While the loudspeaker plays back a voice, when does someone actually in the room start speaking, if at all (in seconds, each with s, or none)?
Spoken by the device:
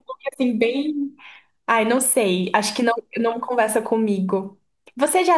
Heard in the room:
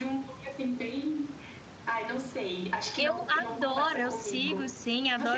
3.0 s